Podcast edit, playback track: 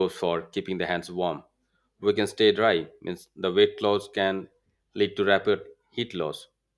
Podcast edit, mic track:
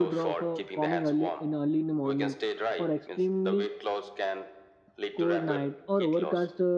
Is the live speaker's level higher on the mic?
Yes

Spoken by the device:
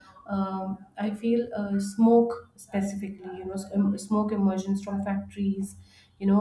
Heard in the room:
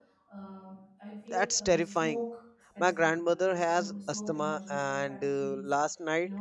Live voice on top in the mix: Yes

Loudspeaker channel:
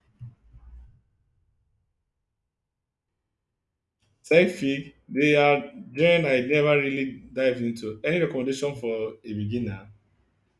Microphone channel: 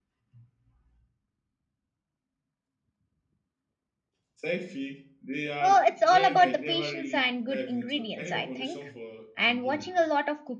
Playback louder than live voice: No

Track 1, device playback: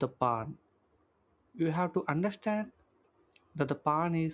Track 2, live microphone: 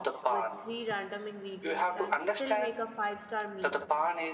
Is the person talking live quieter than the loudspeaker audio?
Yes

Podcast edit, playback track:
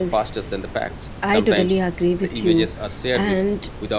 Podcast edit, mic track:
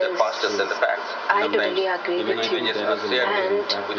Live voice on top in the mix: No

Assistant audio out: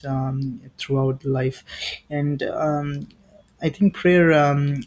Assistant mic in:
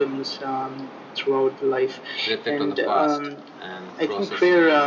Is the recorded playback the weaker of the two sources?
No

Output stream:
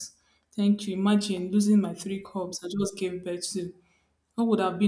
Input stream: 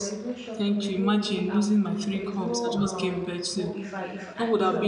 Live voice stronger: No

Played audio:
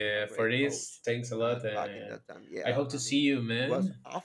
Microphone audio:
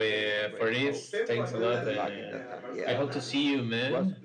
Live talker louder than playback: No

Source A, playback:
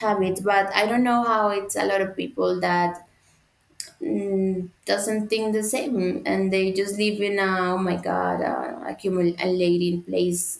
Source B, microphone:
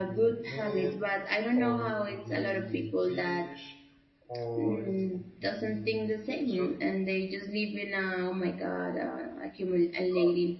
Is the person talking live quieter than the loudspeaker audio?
Yes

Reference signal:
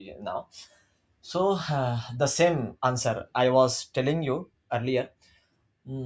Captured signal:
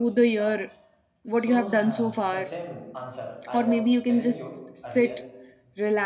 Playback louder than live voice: No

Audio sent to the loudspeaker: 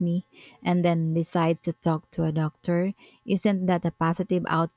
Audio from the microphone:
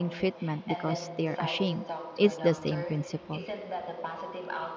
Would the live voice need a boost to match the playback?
No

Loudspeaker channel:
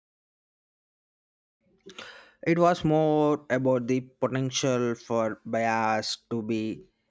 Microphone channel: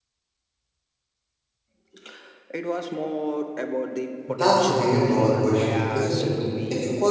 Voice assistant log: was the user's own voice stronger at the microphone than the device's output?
Yes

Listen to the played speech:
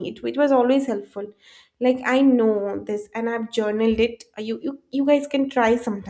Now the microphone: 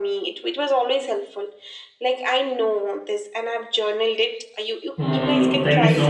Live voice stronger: Yes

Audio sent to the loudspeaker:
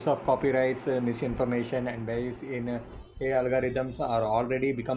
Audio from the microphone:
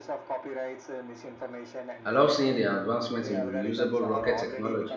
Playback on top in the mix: No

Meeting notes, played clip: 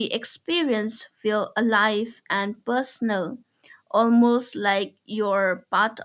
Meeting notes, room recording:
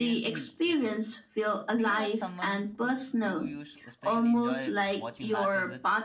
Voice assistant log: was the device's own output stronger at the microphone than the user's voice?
Yes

